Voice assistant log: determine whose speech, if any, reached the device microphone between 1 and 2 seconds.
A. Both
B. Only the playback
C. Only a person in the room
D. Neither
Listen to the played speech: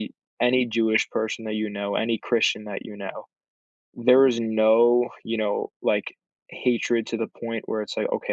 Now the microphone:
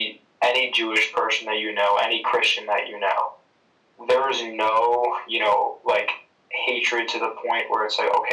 B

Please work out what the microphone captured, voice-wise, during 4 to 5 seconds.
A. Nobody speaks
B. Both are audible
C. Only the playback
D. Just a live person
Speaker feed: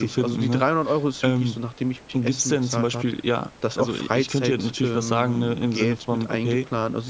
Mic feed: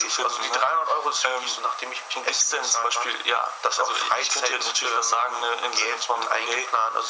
C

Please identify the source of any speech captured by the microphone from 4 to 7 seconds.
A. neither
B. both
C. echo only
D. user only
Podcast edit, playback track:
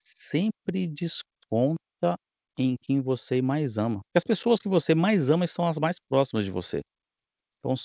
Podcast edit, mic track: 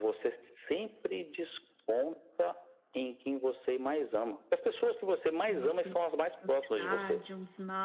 B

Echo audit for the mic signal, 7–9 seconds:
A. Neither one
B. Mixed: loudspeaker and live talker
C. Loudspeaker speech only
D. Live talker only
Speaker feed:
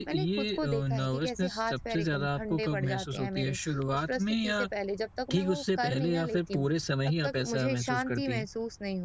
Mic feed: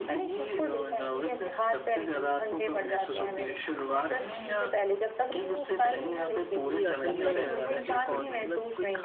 B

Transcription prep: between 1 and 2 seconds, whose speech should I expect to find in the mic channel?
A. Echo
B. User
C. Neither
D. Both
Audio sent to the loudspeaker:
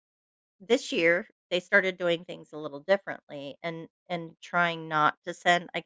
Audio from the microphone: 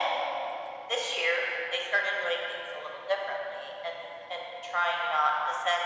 A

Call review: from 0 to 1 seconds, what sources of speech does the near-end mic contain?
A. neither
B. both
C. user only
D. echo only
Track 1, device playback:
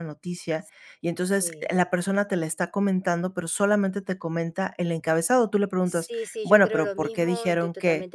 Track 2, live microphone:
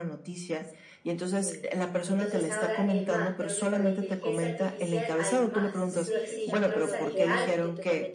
D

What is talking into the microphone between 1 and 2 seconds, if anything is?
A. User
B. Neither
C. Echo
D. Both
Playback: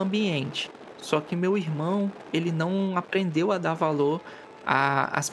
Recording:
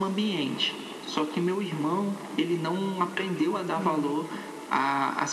C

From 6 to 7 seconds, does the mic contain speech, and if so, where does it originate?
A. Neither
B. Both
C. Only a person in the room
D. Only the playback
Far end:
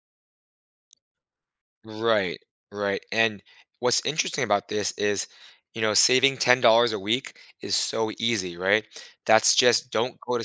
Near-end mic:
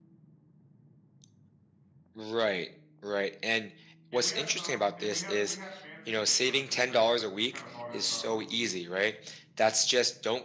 B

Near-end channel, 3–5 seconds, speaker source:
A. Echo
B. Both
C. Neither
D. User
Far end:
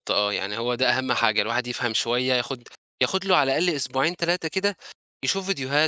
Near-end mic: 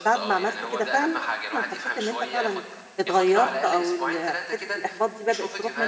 B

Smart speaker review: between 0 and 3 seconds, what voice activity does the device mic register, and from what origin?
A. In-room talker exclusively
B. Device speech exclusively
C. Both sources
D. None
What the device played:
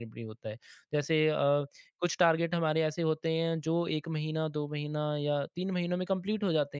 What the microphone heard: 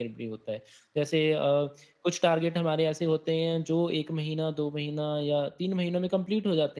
B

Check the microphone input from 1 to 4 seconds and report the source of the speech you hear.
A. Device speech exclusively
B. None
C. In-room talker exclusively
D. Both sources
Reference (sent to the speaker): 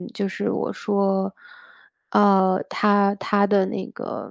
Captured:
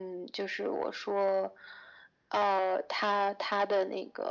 A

